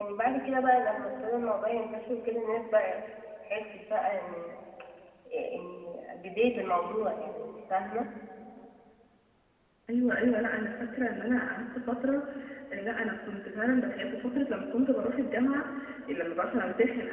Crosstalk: none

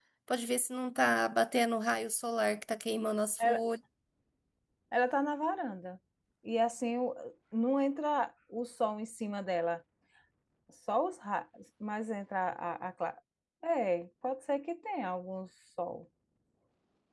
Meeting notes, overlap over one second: none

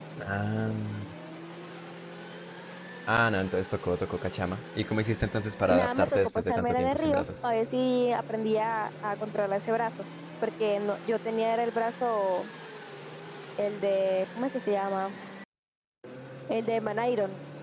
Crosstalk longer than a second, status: present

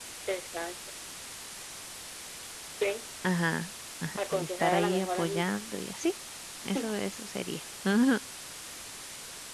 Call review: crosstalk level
present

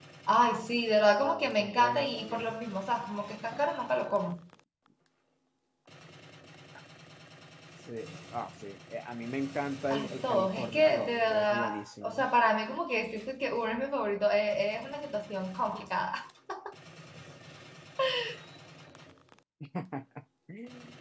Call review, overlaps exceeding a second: present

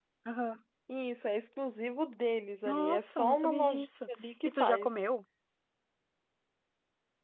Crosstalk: present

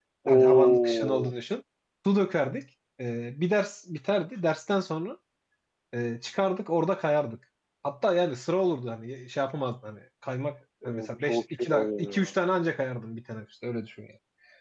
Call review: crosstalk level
present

